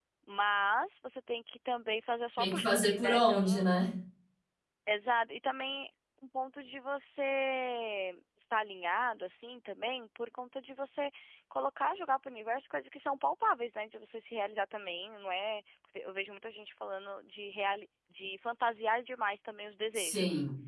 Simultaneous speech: Yes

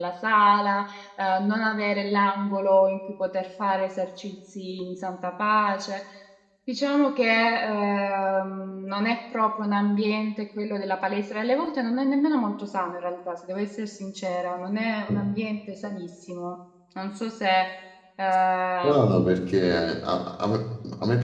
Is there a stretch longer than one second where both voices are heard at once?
No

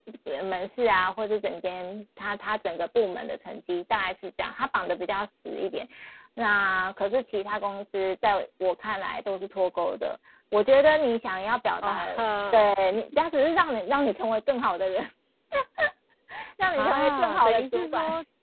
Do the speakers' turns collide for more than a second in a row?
Yes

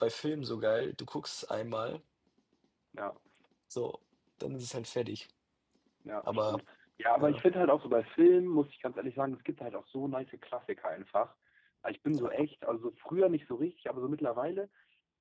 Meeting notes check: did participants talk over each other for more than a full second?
No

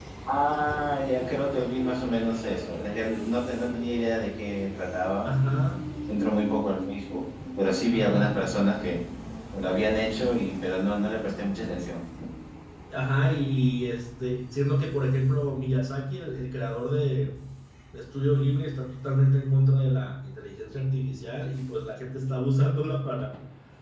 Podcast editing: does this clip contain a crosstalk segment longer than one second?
No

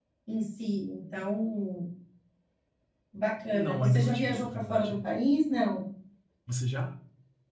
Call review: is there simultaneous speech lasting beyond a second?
Yes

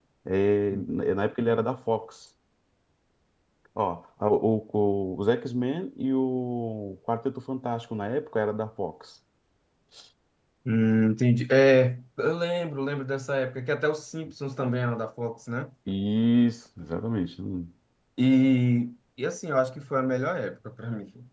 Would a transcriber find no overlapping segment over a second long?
Yes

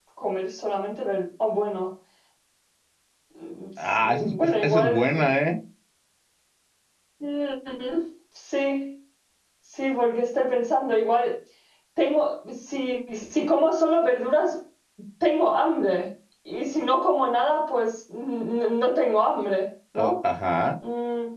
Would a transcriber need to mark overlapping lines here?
Yes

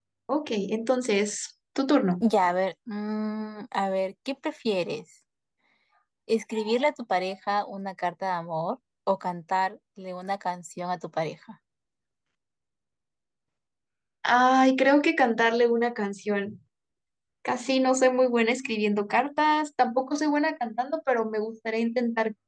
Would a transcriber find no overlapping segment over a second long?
Yes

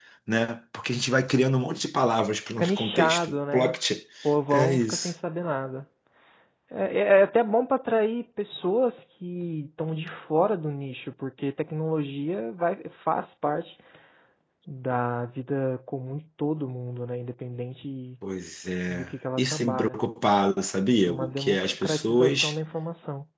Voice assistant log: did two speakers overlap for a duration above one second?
Yes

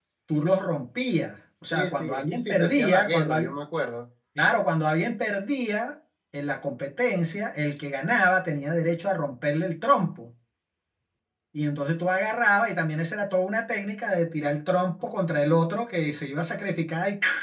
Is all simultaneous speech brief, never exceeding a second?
No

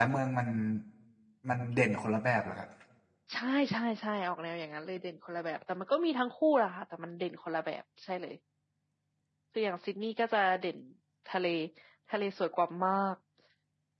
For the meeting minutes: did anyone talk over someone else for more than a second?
No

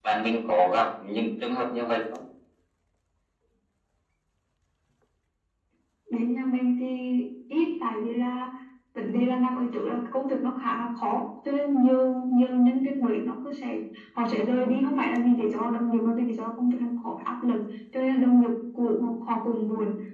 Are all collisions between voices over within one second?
Yes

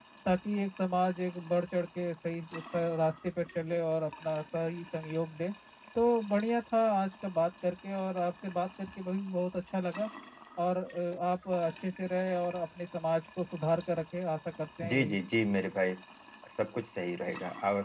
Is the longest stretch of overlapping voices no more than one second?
Yes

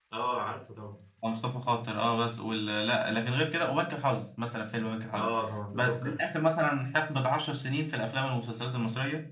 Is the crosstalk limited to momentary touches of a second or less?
Yes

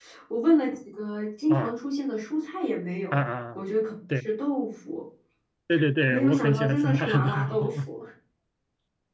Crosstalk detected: Yes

